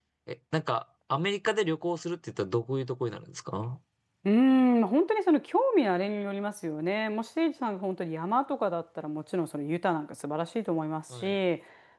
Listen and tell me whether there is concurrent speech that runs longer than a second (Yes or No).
No